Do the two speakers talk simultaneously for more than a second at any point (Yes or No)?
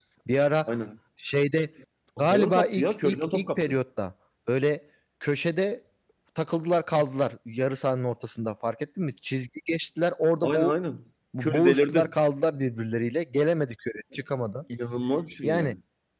Yes